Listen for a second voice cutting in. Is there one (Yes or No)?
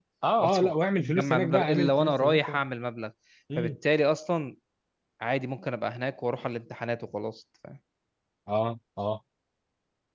Yes